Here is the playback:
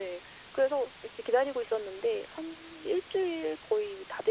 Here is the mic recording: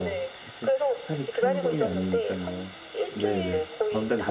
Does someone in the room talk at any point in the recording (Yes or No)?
Yes